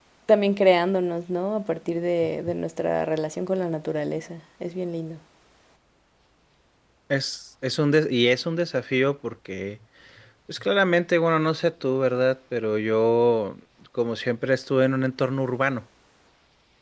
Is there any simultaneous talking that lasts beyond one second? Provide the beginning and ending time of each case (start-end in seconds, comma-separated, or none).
none